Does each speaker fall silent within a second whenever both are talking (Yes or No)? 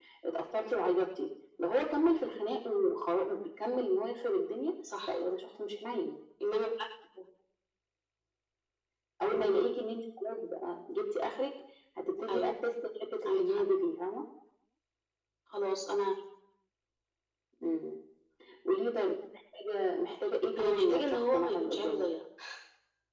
No